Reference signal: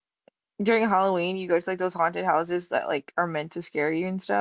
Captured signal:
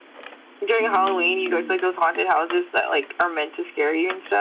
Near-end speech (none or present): present